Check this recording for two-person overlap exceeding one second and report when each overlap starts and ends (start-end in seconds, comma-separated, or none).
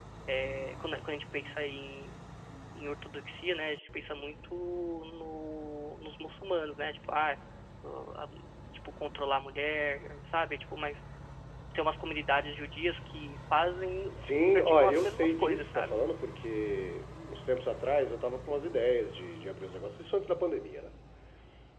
14.6-16.0